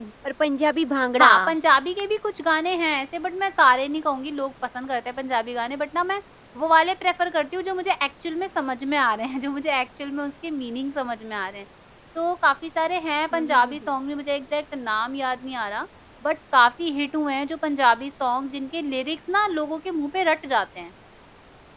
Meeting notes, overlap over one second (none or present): none